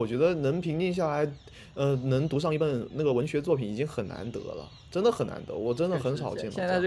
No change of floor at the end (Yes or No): No